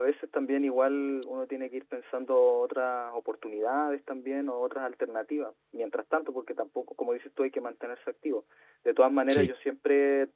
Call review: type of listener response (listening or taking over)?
listening